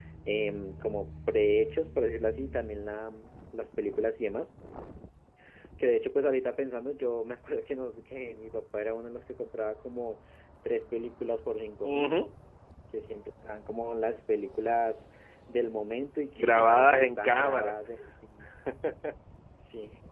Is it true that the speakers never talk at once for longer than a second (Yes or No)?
No